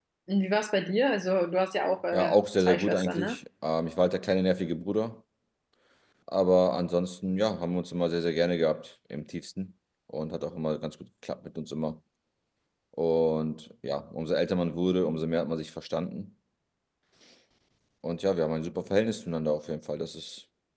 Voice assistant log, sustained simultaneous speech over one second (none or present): present